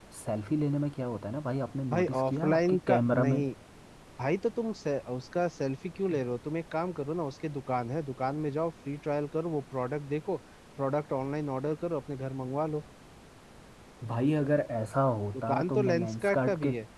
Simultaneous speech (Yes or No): Yes